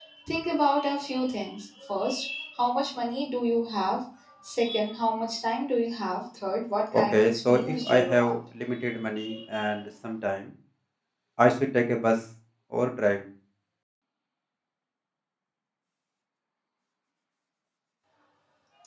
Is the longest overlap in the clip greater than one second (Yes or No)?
Yes